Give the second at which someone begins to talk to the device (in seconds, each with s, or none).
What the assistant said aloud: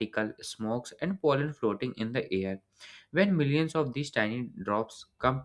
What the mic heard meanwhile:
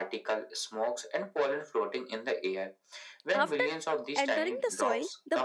3.3 s